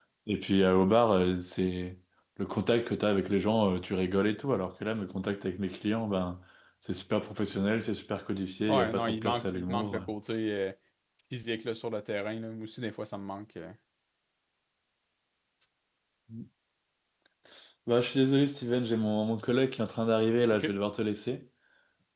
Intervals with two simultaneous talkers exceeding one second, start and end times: 8.7-10.0

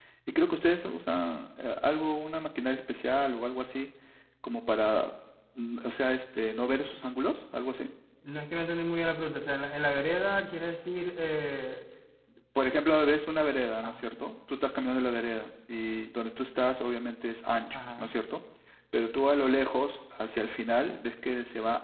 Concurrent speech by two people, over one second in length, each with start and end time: none

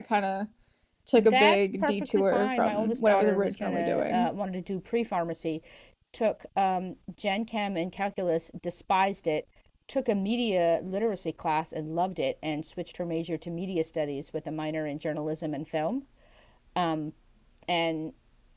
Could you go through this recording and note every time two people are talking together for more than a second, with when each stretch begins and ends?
1.2-4.3

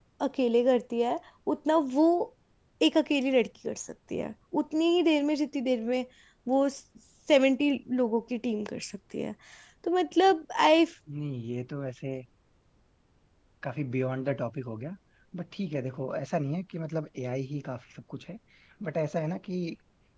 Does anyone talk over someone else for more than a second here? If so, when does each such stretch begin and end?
none

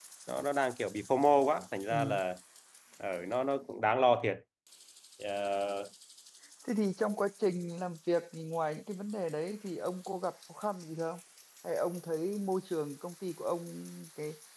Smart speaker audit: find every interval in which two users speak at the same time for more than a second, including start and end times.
none

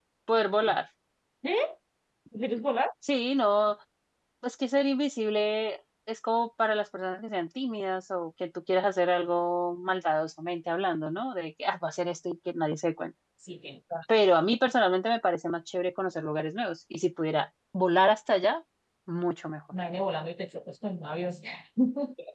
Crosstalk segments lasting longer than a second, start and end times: none

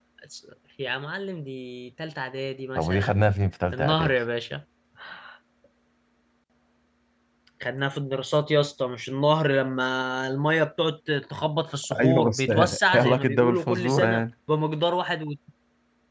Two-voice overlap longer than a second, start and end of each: 12.0-14.2

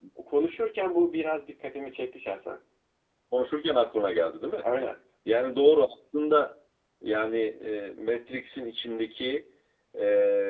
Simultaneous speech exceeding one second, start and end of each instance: none

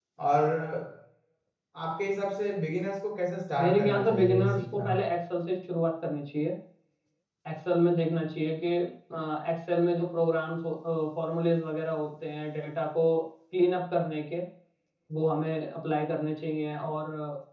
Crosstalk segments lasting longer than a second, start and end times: 3.6-4.9

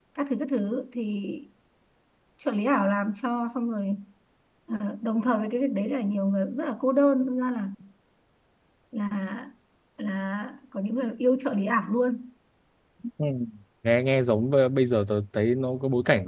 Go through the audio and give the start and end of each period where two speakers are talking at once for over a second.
none

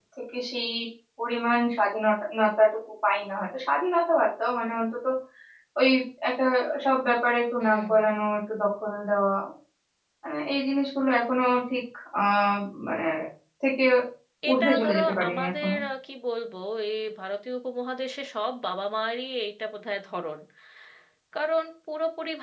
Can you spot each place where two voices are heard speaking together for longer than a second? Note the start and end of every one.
14.5-15.7

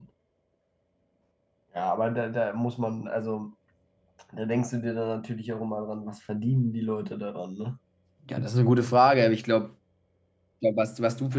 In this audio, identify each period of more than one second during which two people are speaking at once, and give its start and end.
none

